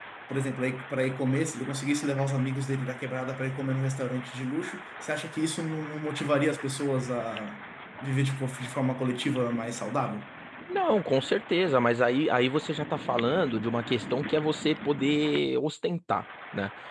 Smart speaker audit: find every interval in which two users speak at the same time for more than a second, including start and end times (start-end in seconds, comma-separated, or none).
none